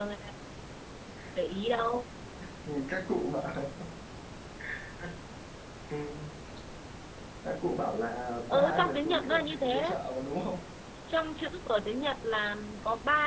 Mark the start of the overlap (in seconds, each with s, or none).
8.5 s